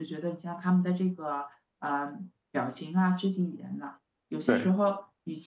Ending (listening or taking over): listening